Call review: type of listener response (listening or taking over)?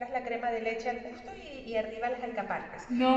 listening